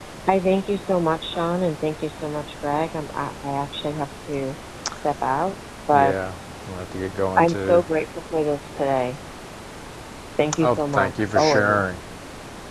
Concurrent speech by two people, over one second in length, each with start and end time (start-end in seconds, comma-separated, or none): 10.6-11.9